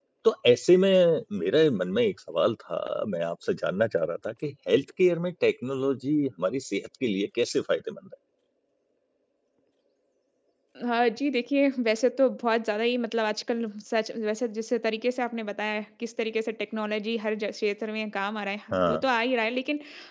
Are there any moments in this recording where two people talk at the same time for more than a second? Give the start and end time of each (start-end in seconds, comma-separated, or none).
none